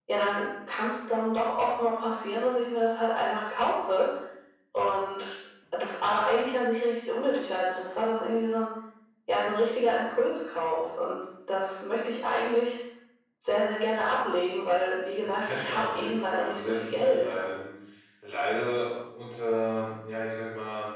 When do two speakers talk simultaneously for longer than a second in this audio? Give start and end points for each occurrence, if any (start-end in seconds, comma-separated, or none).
15.2-17.3